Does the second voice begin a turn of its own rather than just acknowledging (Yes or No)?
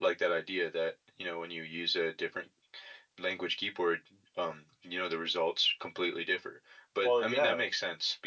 No